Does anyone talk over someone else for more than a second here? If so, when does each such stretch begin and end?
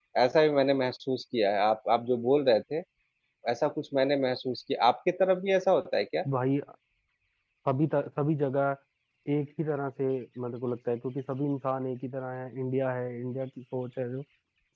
none

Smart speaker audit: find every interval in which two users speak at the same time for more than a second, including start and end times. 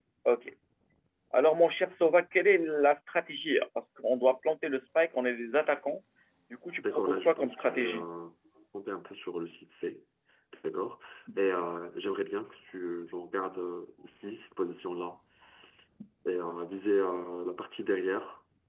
6.8-8.0

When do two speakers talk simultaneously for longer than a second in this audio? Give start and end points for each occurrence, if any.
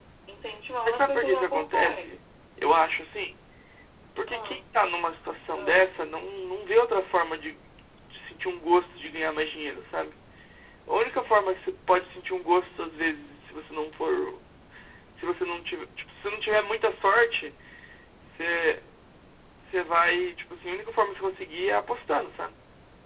0.8-2.1

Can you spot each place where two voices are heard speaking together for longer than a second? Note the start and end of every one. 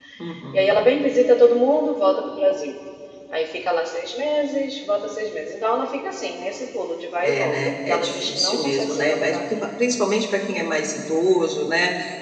7.2-9.7

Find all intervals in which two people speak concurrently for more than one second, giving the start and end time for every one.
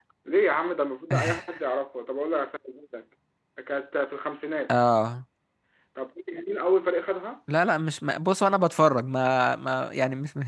none

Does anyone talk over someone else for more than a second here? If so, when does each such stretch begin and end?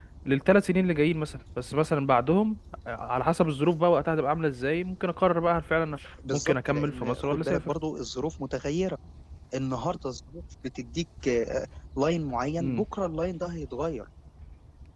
6.3-7.7

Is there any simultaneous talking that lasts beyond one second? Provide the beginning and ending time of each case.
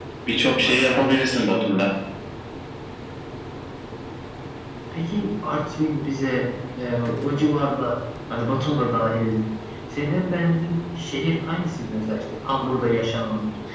0.5-1.9

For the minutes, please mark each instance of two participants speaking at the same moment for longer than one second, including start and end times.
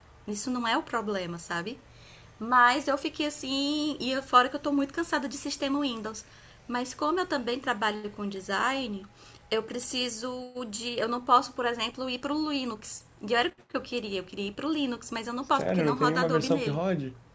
15.6-16.8

